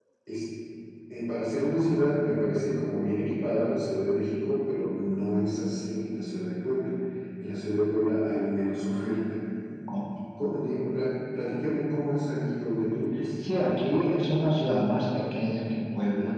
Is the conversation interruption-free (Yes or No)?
Yes